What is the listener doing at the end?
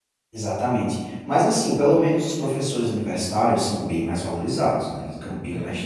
listening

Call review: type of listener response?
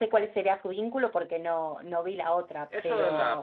taking over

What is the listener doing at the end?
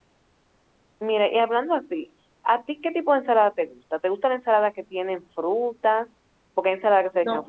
listening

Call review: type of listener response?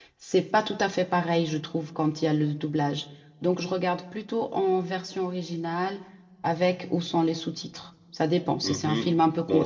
taking over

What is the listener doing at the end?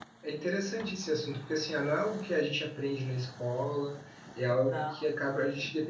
listening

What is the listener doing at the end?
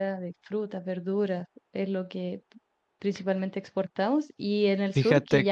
listening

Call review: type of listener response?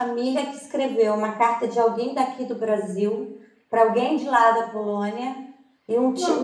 listening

